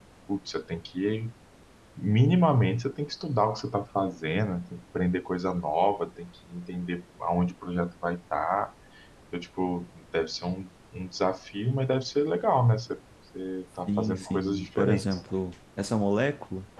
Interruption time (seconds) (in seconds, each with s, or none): 13.9 s